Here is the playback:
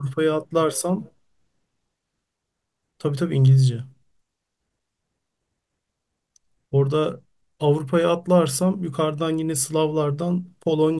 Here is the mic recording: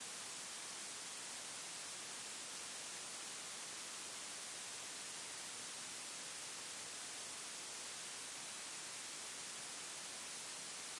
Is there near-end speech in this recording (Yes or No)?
No